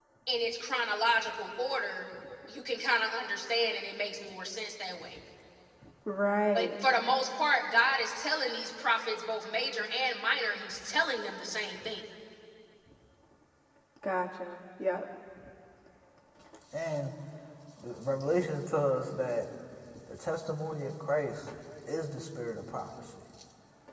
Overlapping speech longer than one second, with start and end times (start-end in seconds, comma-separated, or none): none